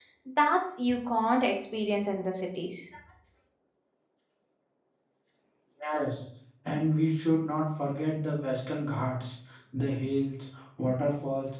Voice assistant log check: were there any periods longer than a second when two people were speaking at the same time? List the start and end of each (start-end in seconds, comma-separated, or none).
none